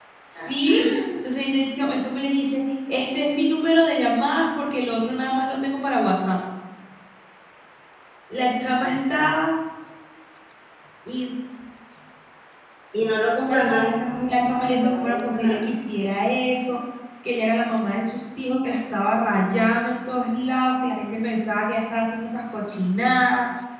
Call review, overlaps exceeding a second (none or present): present